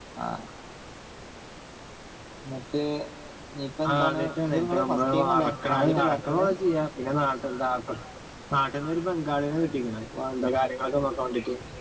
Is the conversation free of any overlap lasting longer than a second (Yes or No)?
No